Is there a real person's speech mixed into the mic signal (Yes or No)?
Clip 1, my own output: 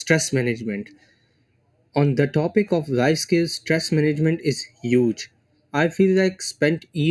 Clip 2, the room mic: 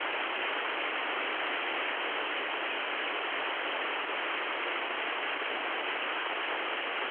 No